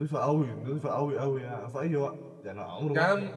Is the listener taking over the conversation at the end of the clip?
No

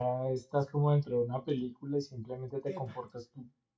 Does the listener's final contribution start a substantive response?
No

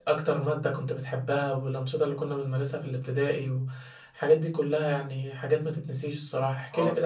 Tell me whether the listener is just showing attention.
No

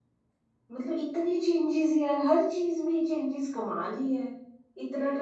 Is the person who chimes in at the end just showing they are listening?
Yes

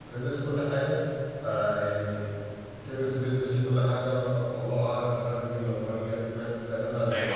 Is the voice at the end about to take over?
Yes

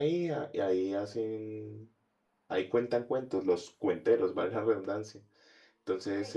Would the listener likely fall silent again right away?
No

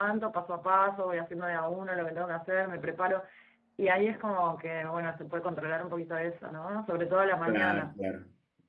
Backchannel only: No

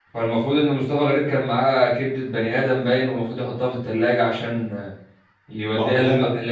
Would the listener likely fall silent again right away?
Yes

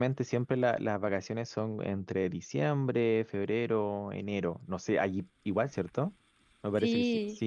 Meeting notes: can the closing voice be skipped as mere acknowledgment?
No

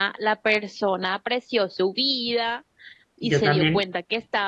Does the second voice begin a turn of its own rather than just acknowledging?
No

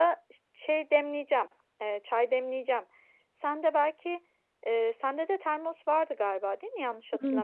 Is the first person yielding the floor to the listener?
Yes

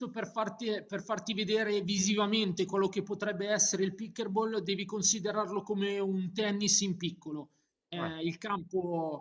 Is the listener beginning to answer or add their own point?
No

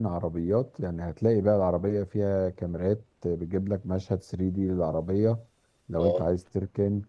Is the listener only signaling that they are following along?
Yes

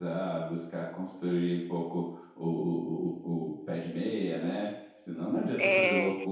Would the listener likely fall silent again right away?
Yes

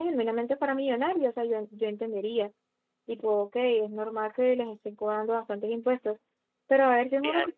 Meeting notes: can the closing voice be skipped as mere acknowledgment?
Yes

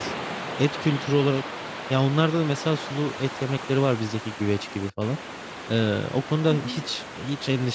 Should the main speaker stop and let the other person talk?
No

